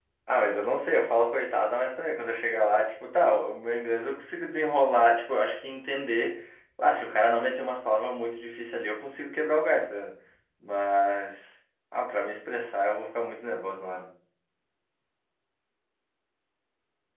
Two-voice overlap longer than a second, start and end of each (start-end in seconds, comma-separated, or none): none